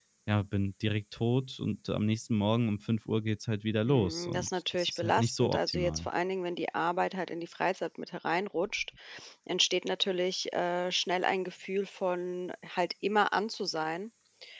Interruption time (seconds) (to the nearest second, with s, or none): 4 s